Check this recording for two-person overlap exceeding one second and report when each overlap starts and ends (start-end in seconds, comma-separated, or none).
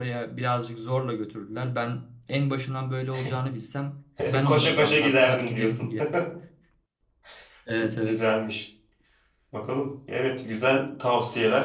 4.4-5.8